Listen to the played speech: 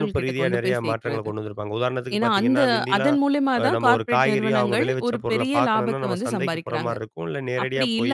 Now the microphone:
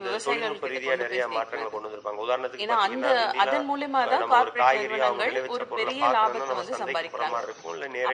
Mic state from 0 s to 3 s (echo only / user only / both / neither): echo only